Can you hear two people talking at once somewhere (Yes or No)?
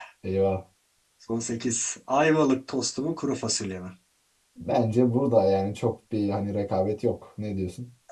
No